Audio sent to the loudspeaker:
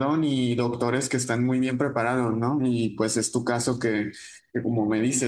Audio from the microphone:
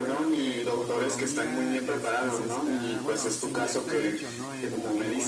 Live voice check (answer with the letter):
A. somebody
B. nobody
A